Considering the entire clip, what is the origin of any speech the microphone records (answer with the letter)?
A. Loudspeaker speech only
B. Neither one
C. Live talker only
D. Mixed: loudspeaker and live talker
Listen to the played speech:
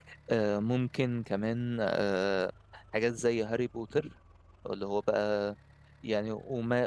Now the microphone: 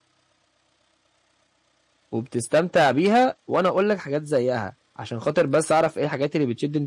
C